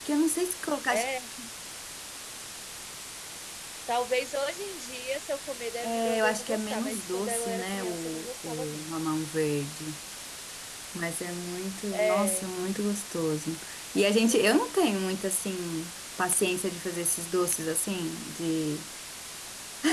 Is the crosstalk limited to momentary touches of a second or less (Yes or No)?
No